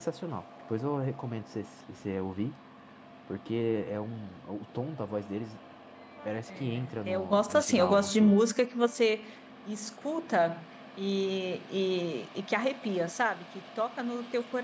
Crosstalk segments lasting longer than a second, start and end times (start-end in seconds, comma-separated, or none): 6.5-8.4